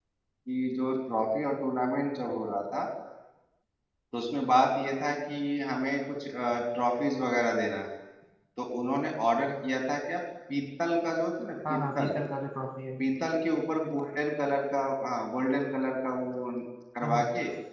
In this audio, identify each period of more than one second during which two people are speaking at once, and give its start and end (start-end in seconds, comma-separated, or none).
none